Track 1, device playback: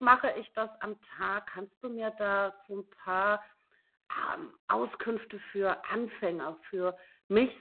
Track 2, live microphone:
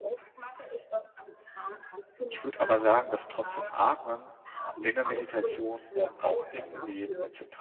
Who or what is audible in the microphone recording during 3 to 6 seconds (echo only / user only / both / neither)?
both